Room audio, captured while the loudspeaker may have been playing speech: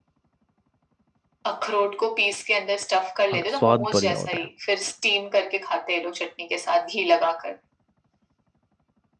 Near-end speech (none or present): present